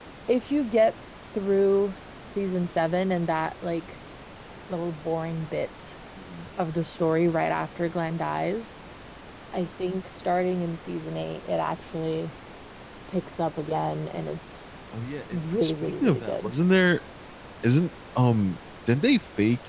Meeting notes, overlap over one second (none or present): present